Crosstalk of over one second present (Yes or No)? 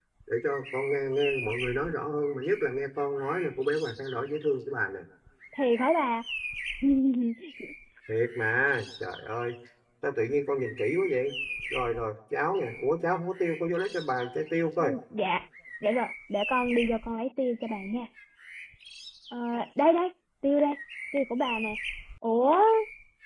No